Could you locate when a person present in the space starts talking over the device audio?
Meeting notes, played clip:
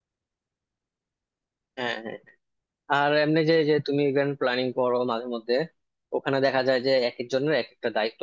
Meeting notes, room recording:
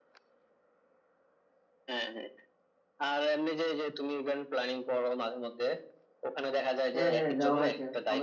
6.9 s

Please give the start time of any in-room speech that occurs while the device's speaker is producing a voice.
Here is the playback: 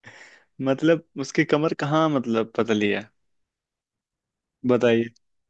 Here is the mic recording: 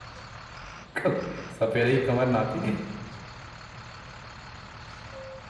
0.9 s

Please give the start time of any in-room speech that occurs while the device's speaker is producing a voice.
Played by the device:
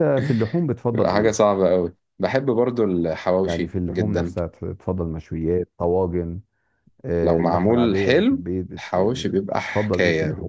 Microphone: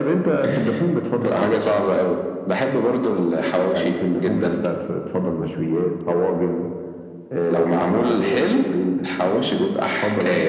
none

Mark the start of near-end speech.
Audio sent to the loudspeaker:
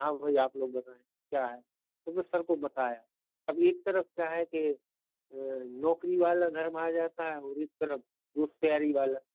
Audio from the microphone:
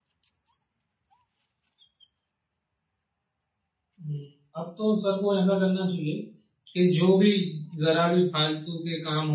4.0 s

